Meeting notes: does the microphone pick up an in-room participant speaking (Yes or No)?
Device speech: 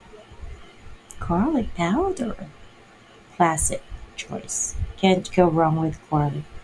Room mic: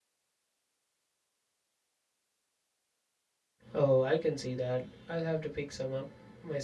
Yes